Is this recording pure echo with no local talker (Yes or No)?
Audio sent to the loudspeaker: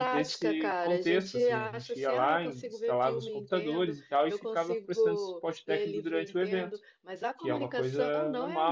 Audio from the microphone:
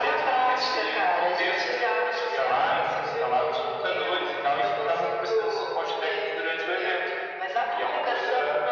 Yes